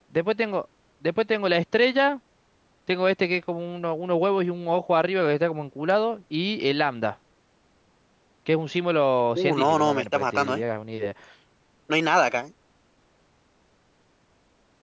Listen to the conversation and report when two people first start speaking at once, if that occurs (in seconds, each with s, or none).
9.4 s